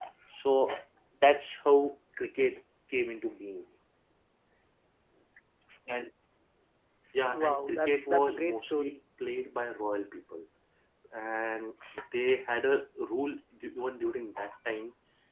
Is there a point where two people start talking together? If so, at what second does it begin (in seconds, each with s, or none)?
7.3 s